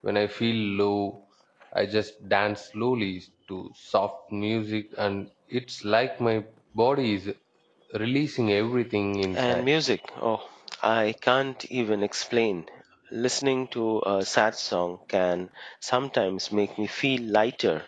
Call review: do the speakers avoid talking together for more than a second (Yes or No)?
Yes